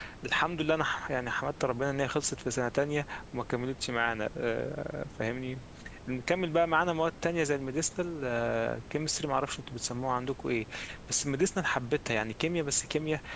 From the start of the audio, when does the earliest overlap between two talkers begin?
none

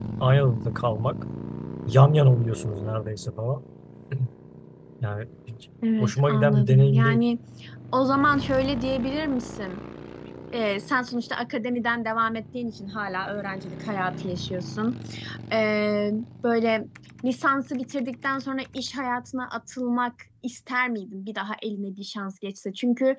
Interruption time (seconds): 5.8 s

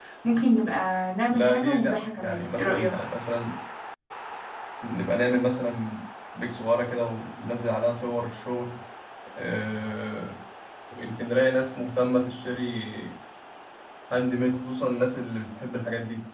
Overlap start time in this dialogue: 1.3 s

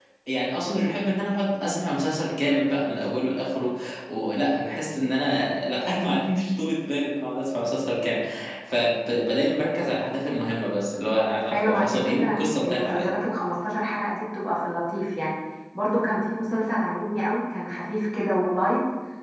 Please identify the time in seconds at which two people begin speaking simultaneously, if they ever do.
11.5 s

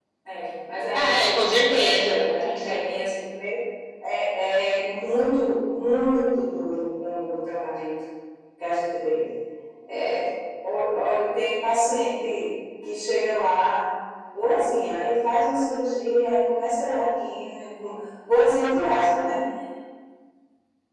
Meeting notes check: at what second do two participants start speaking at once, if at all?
0.9 s

